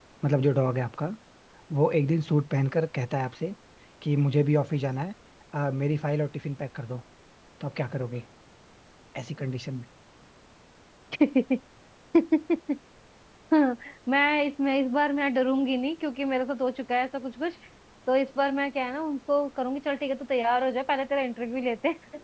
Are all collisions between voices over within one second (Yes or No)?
Yes